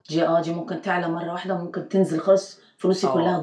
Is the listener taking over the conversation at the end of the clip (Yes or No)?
Yes